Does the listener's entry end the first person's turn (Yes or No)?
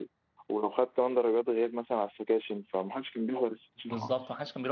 Yes